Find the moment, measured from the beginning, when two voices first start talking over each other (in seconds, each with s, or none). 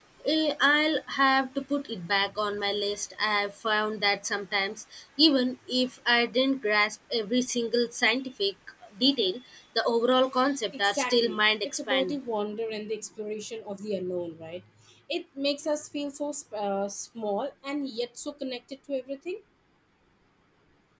10.8 s